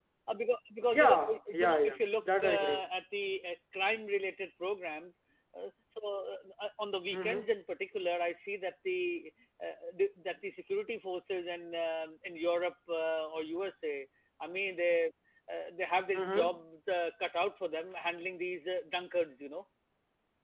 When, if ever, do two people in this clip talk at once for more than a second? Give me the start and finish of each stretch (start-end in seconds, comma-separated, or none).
0.9-2.8